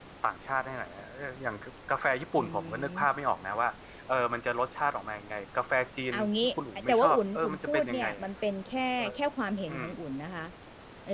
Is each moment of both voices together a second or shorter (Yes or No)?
No